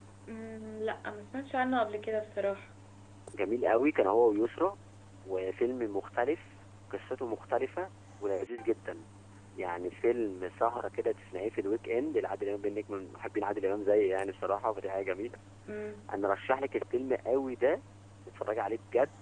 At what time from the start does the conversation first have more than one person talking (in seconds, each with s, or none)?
none